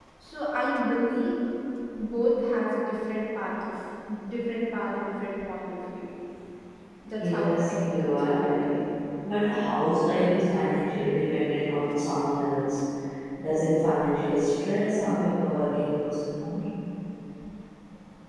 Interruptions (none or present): present